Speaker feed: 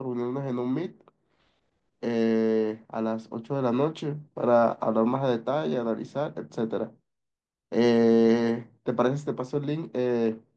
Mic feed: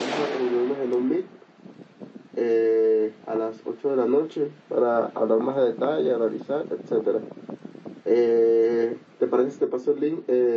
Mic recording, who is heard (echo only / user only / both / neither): echo only